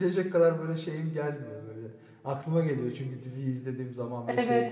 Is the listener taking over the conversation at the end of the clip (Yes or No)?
Yes